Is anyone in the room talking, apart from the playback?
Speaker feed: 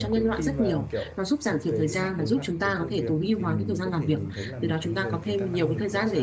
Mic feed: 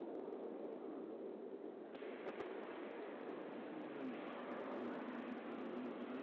No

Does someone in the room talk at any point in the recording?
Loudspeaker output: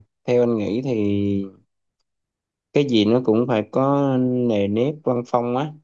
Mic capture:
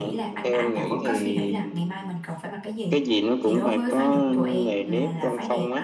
Yes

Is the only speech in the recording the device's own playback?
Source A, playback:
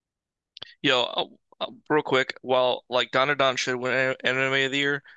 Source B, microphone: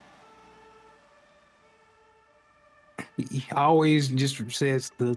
No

